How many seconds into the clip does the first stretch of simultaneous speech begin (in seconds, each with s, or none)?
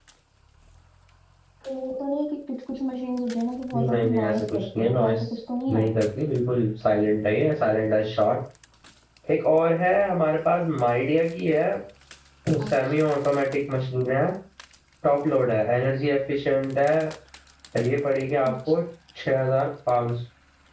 3.7 s